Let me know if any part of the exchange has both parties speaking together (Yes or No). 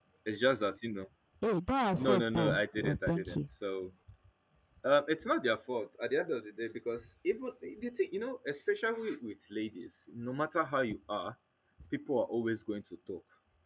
Yes